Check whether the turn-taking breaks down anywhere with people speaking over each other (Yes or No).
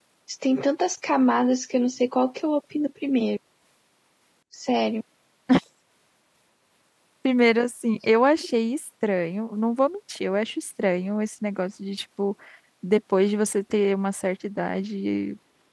No